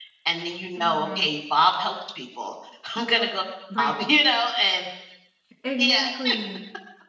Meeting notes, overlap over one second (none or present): none